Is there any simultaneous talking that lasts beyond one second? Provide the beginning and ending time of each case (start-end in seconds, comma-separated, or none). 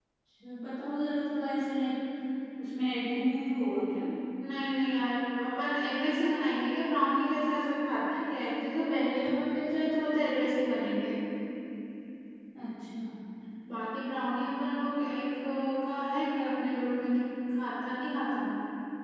none